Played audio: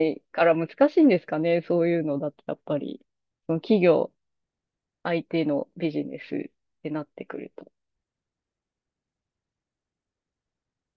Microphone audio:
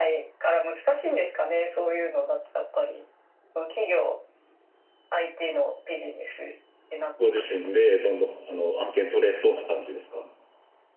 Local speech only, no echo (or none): ご自身でどんどん、あの、案件取れそうな感じですか